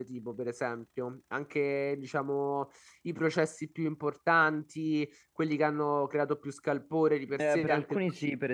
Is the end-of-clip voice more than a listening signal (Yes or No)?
Yes